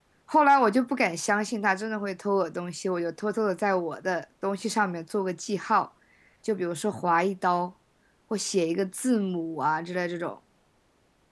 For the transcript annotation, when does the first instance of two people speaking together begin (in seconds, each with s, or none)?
none